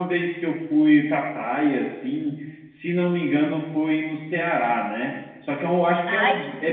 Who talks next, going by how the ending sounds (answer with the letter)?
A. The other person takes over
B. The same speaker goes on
B